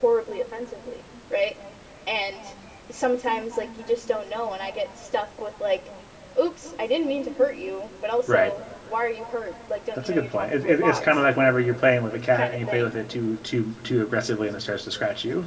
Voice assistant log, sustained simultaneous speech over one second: present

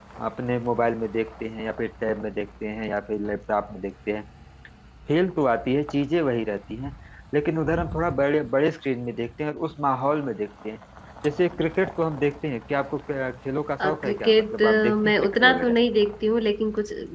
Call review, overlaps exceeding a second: present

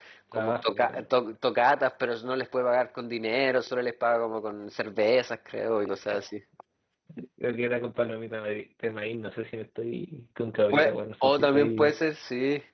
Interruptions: present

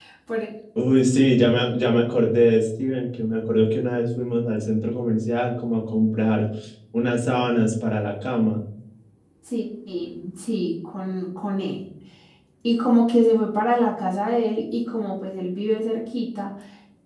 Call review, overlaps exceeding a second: none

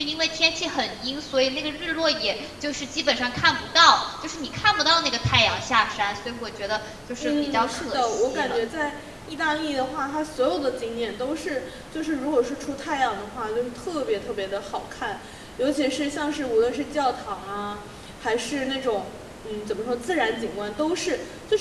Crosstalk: present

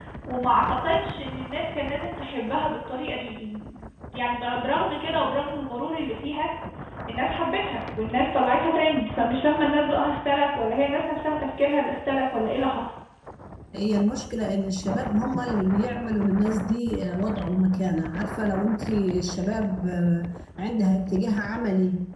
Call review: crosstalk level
none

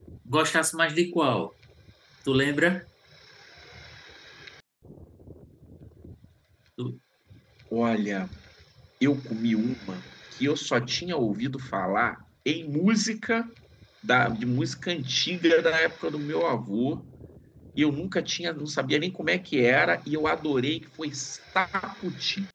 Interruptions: none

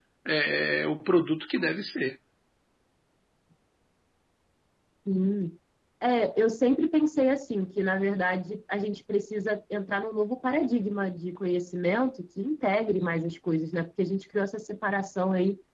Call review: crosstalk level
none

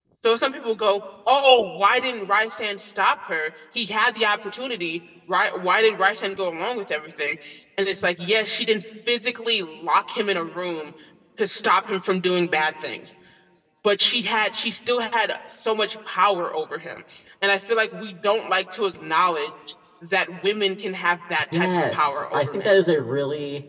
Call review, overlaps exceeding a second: present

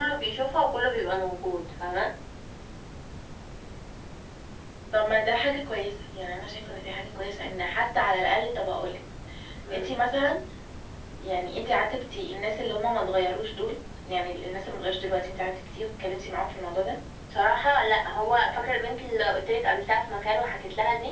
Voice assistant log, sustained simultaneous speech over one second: none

